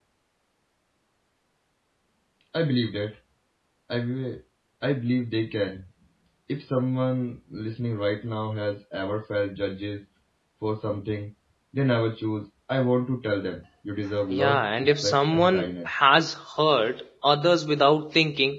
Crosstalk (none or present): present